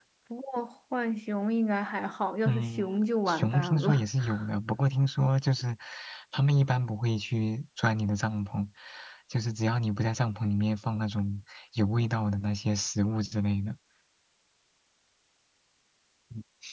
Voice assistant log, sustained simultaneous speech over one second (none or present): present